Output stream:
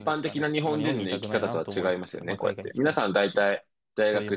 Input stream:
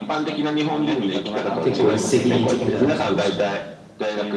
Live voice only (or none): 結構一石二鳥みたいな感じでしたね。